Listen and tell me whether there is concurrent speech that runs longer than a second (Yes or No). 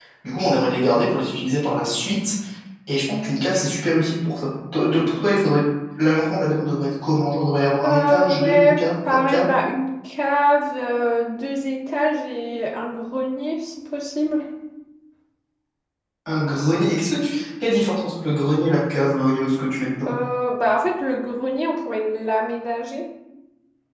Yes